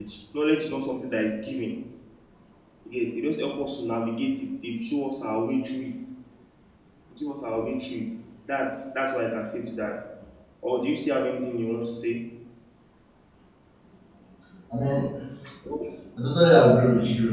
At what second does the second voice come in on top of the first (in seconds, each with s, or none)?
none